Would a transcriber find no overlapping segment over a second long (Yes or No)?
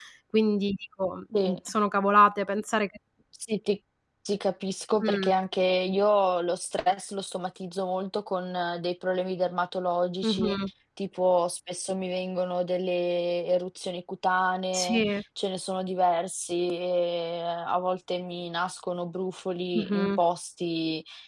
Yes